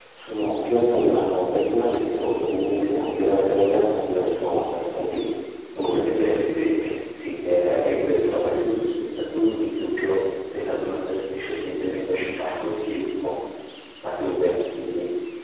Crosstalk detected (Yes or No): No